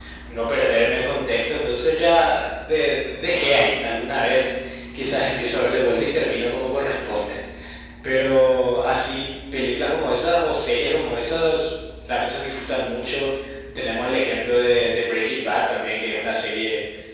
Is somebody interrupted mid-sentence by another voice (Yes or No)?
No